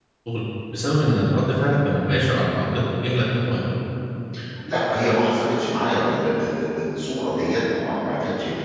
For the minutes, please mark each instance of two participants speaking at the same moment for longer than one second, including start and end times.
none

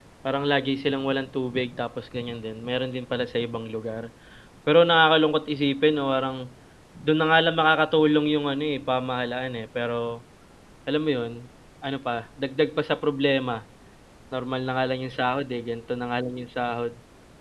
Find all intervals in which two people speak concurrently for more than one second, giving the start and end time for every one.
none

